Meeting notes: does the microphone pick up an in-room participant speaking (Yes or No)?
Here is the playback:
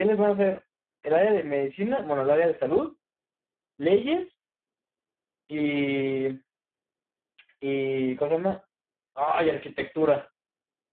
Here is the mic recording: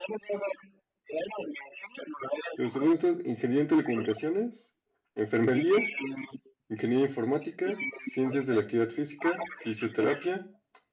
Yes